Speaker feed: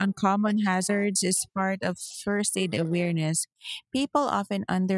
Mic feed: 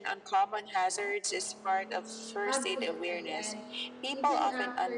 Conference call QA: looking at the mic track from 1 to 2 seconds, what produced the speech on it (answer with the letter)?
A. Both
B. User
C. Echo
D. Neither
C